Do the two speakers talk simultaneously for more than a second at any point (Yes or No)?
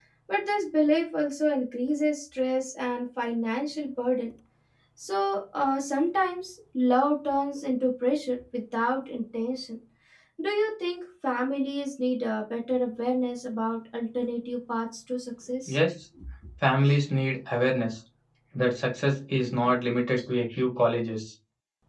No